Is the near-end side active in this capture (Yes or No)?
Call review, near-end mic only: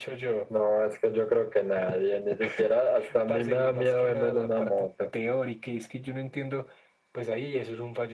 No